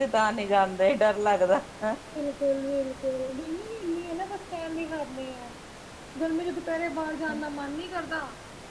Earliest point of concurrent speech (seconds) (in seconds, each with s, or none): none